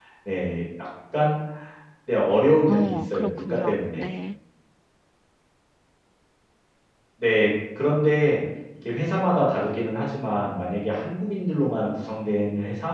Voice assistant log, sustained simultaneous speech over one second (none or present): present